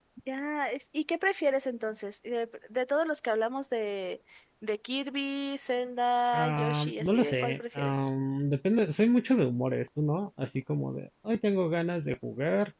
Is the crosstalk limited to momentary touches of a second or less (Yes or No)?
No